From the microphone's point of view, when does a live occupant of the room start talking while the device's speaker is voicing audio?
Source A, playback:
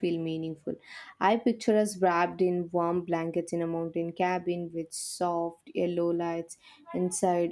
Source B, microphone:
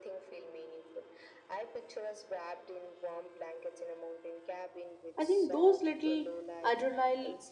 5 s

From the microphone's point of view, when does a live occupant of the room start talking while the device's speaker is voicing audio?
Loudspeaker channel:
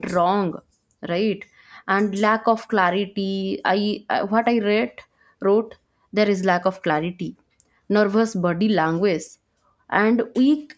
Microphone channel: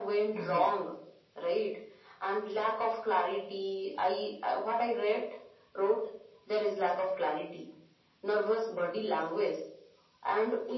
0 s

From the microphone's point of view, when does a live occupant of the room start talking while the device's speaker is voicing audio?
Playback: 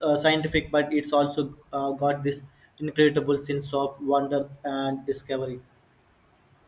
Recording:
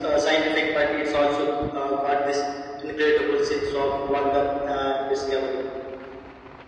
none

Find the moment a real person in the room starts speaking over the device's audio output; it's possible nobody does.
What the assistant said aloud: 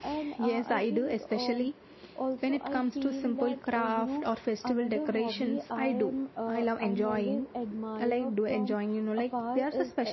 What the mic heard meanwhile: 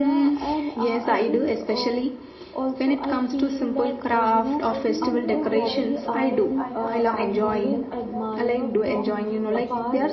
5 s

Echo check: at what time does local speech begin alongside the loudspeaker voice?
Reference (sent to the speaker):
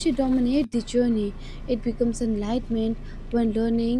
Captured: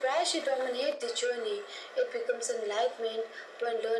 none

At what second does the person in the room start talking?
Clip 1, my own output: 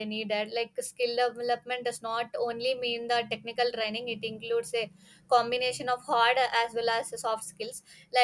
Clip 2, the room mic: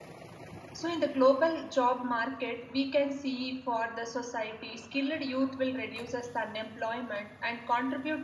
1 s

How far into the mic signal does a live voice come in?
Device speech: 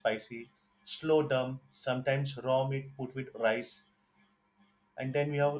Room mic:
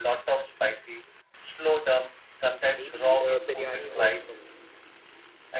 3 s

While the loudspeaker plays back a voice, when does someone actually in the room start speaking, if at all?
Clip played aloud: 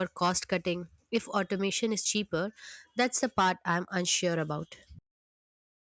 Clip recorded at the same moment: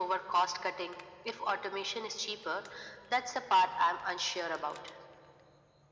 none

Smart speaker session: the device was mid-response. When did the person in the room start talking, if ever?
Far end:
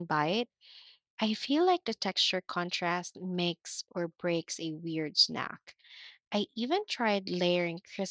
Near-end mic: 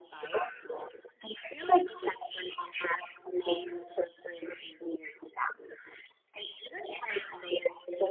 none

